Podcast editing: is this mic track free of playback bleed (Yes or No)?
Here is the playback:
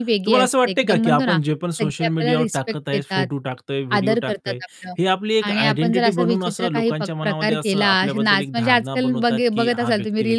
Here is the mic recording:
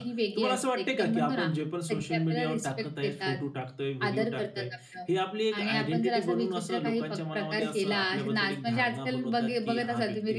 No